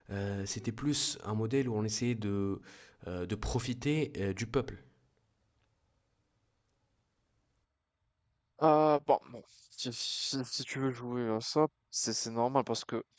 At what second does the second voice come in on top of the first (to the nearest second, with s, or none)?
none